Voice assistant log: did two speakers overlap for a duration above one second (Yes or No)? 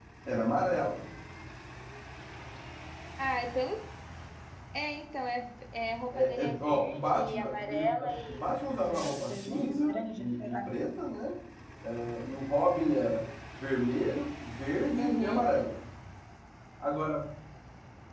Yes